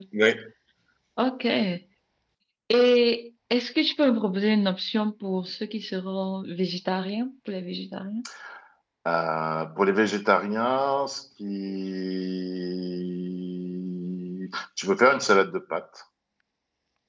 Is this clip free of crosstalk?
Yes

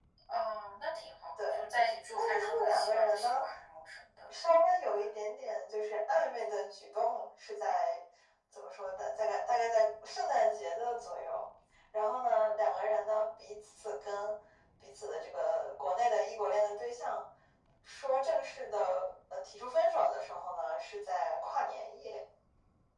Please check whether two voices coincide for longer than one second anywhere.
Yes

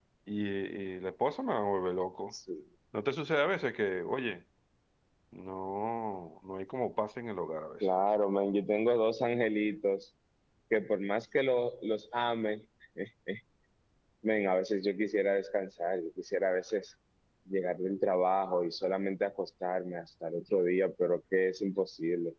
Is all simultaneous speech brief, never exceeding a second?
Yes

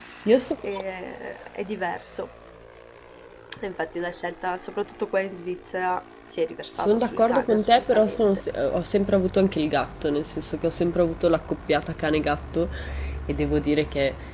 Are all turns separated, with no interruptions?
No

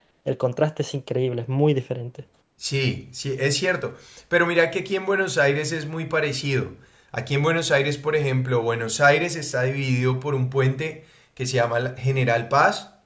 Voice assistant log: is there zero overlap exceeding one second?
Yes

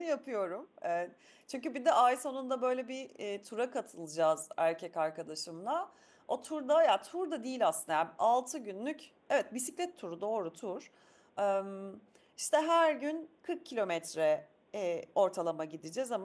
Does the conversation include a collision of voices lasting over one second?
No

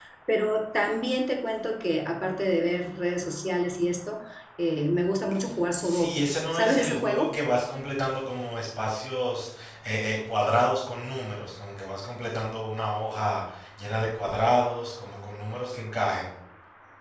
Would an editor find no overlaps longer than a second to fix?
No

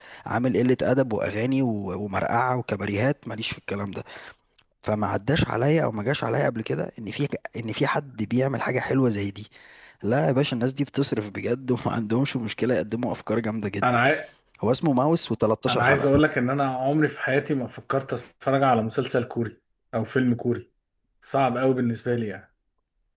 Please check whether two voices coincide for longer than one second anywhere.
No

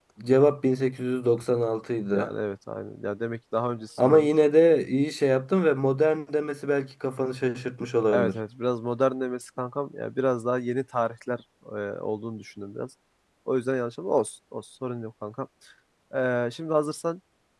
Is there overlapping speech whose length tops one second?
No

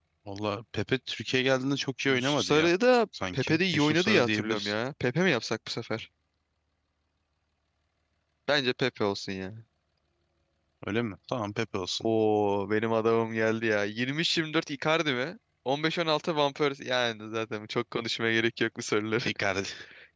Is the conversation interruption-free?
No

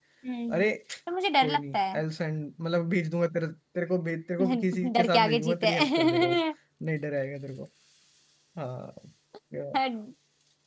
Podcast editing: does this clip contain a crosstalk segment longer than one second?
Yes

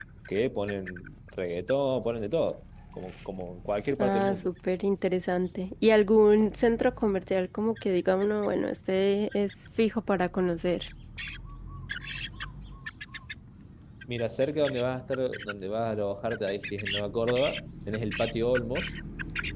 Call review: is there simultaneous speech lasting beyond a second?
No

